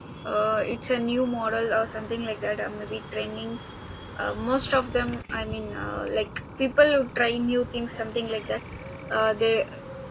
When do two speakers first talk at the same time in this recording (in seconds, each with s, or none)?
none